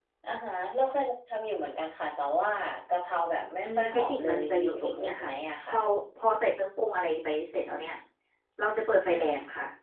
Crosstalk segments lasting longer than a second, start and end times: 3.6-5.7

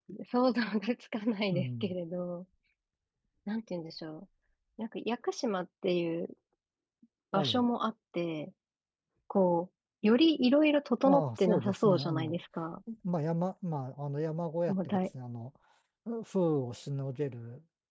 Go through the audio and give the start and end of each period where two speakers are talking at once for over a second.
11.0-12.4

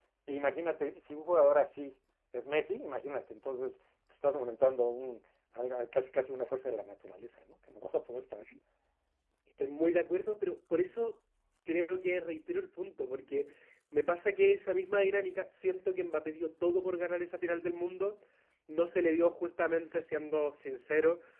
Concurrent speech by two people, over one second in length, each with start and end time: none

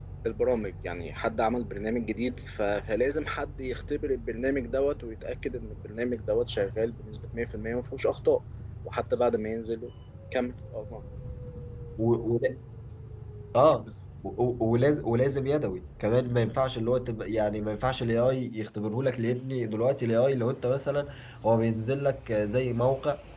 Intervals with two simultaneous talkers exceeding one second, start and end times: none

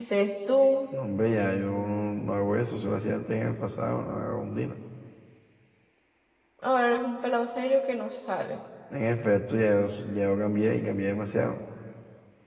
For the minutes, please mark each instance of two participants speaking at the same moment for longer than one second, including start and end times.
none

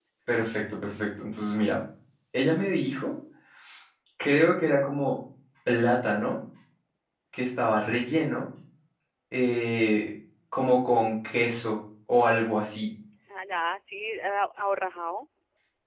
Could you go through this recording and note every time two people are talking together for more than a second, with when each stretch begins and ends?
none

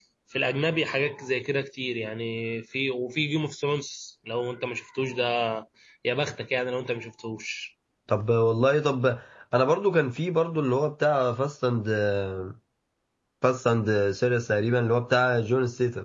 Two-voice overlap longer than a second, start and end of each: none

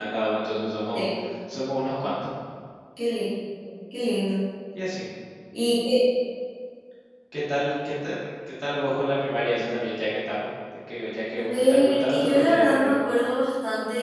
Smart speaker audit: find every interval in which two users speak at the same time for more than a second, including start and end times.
11.3-12.9

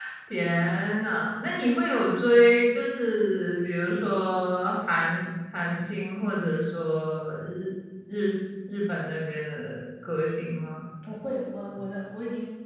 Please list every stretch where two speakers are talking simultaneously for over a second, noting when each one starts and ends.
none

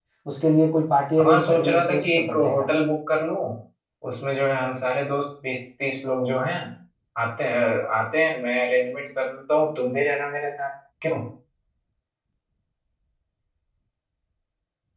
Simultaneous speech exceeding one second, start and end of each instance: 1.2-2.7

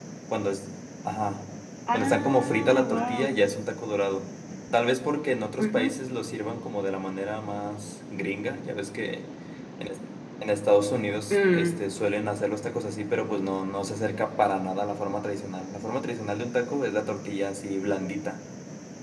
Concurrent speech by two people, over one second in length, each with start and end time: 1.9-3.4

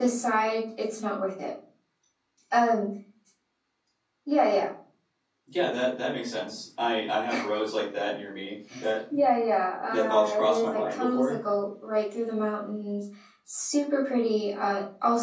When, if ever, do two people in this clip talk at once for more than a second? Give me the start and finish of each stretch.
9.9-11.4

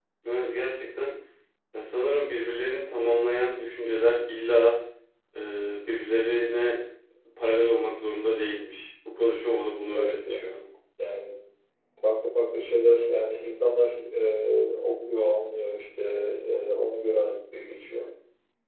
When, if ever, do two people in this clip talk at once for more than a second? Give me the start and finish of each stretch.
none

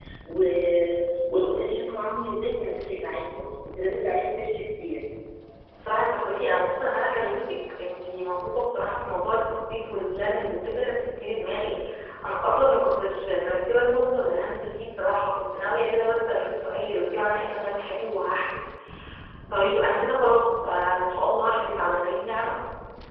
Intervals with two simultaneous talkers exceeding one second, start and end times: none

